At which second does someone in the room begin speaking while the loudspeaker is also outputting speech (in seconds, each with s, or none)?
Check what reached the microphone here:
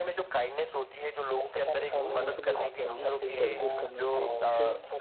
1.9 s